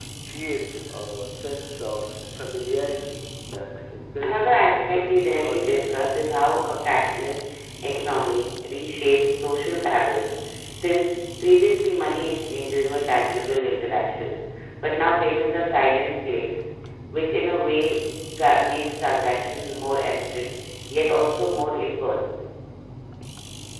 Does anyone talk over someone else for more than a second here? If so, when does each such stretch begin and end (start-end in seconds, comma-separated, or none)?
4.2-6.3